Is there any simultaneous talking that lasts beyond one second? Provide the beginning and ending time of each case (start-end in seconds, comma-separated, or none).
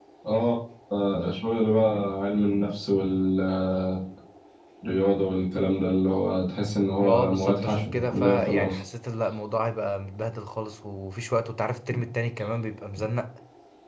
7.0-8.8